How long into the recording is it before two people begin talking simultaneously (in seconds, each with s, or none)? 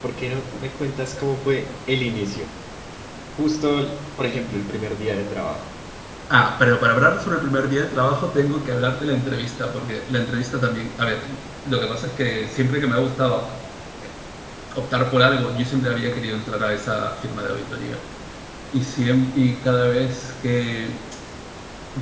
none